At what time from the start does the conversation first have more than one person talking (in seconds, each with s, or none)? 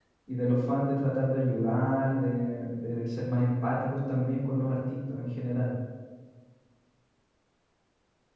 none